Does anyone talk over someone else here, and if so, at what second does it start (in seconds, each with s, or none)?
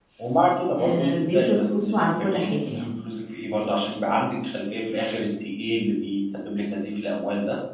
0.8 s